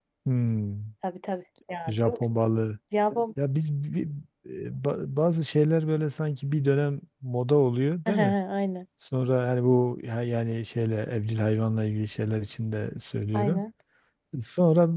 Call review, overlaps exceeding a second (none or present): none